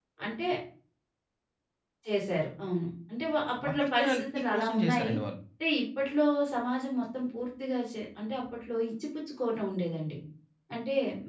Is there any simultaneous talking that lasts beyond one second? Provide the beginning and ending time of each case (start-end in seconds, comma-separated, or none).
3.7-5.1